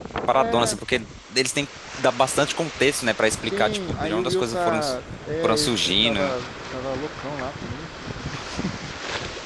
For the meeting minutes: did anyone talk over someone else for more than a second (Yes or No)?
Yes